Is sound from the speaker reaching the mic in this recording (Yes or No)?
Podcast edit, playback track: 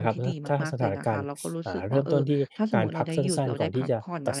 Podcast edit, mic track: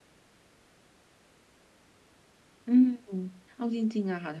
No